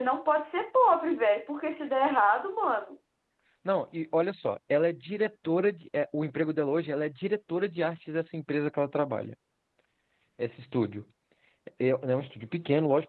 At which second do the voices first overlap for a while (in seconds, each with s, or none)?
none